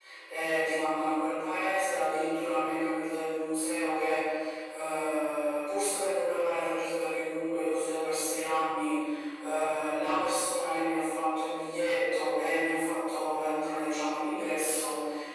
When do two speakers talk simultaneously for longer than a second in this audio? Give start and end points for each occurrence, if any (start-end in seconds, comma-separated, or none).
none